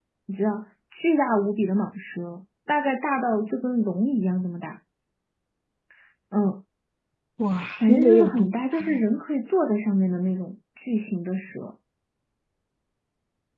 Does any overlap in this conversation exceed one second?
Yes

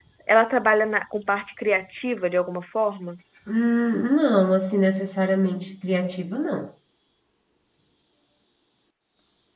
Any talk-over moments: No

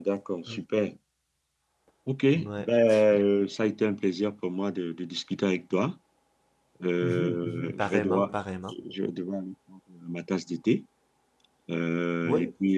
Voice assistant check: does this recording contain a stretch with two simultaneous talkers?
Yes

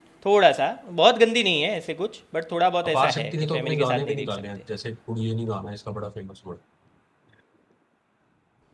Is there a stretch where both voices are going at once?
Yes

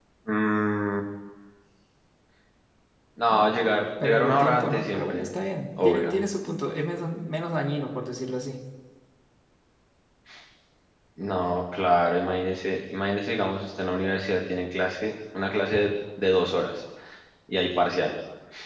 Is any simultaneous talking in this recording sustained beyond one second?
Yes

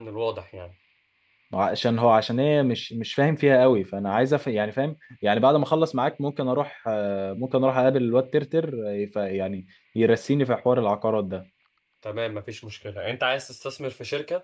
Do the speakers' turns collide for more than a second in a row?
No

